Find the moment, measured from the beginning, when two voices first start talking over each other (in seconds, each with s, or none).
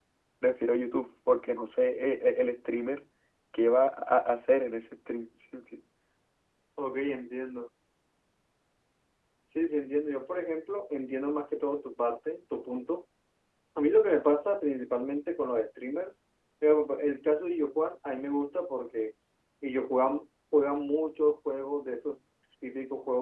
none